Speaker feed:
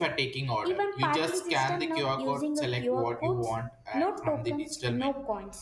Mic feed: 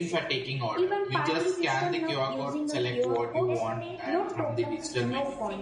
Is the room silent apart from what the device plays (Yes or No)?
No